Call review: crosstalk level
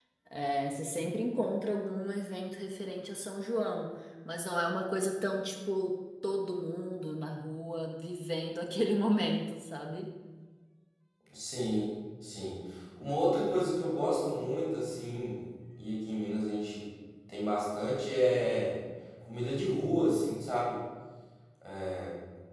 none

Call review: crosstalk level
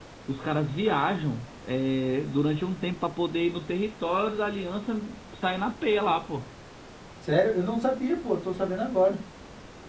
none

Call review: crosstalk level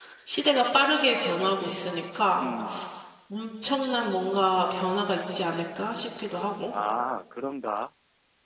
none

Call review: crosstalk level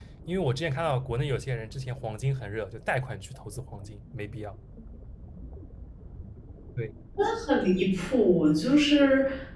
none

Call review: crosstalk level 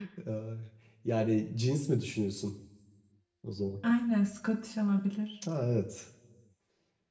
none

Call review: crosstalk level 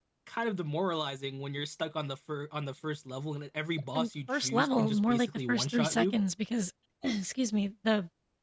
present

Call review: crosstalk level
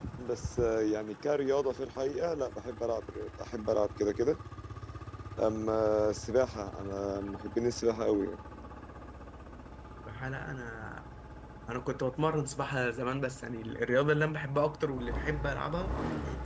none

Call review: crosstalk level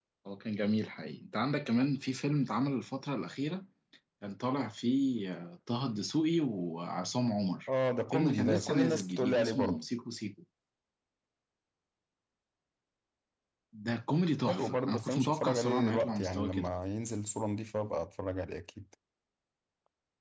present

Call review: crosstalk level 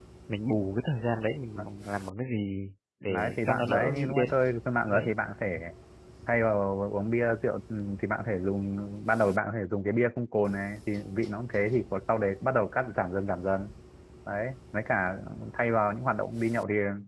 present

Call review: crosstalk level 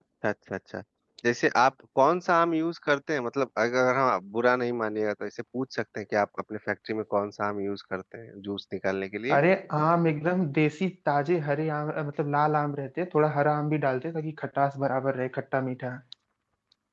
none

